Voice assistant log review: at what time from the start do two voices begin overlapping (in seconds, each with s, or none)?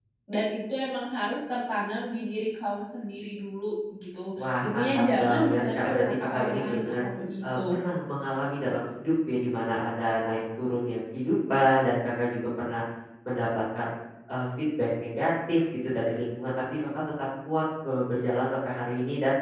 4.4 s